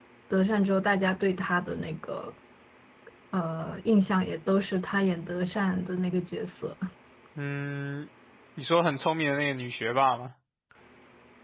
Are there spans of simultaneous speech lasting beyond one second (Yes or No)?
No